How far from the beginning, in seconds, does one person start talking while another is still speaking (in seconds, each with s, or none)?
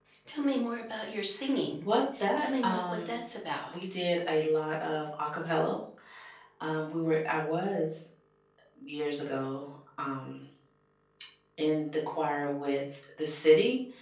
1.9 s